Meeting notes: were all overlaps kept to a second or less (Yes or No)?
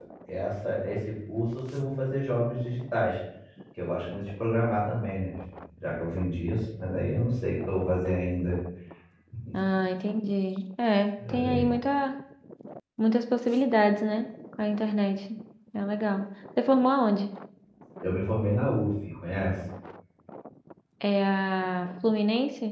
Yes